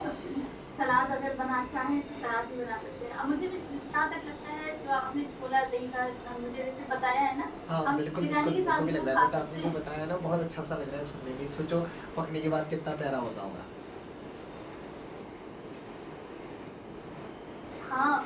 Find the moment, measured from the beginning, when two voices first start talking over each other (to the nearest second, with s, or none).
8 s